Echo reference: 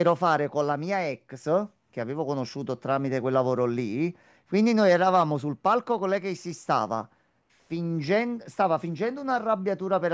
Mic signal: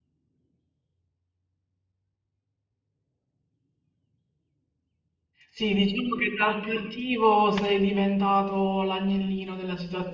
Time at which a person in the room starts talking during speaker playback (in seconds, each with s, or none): 5.5 s